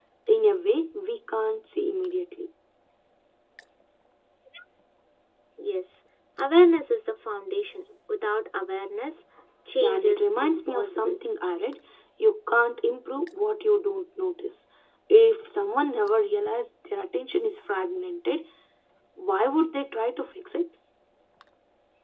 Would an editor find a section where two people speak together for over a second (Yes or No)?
Yes